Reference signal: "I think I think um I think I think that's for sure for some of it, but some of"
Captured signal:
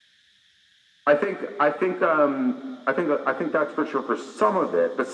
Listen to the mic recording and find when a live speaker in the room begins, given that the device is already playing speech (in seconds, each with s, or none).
none